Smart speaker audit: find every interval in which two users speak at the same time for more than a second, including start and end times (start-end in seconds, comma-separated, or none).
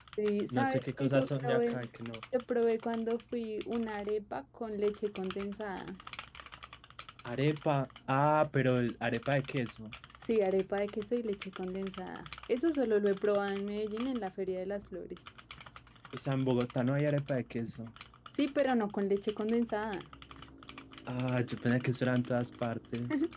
0.6-1.9